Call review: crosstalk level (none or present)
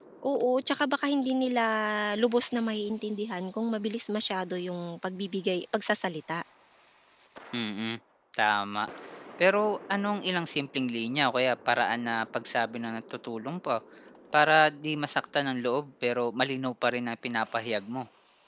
none